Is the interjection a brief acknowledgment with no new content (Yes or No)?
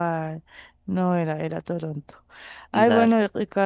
Yes